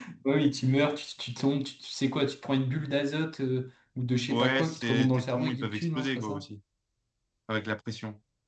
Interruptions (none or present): present